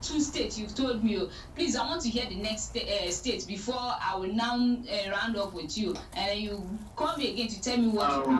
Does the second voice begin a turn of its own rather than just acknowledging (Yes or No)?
Yes